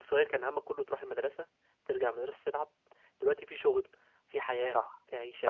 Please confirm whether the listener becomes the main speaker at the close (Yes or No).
No